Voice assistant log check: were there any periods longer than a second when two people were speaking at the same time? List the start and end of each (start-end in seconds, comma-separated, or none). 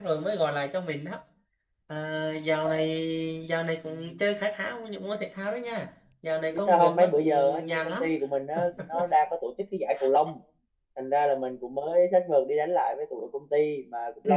6.5-8.1